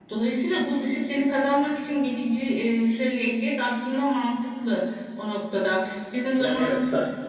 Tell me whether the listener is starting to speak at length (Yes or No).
Yes